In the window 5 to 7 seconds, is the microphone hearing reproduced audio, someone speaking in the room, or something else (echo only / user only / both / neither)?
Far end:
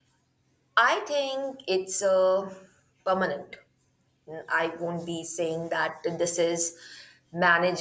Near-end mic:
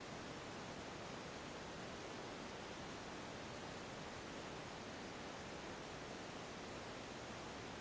neither